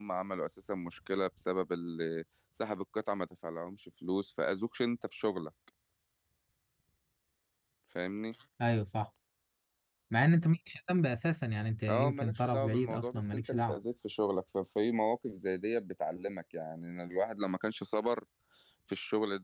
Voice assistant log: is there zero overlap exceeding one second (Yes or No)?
No